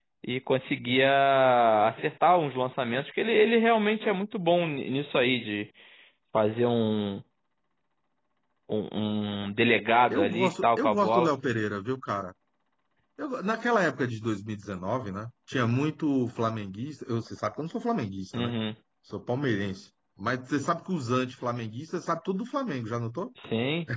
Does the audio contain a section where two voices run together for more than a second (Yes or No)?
Yes